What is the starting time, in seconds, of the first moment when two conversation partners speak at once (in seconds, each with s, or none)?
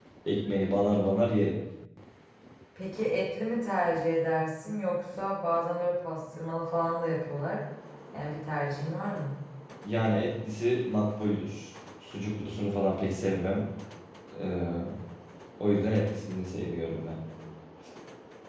none